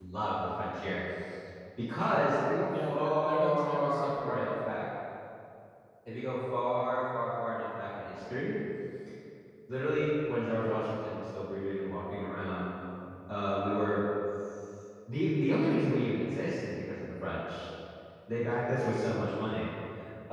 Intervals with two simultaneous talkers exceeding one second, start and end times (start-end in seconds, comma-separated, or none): 2.9-4.5